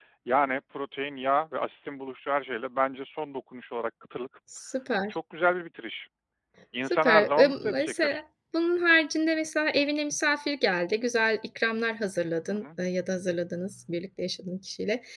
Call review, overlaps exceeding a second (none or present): present